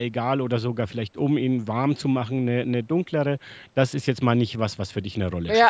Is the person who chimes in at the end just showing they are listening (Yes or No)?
No